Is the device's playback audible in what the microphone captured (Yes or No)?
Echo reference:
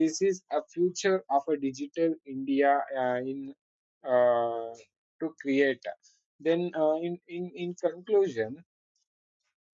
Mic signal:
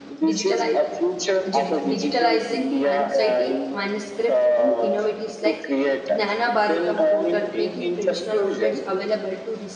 Yes